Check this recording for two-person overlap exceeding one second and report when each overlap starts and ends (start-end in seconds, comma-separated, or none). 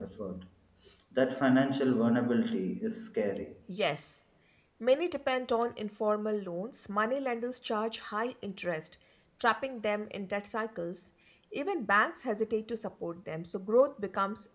none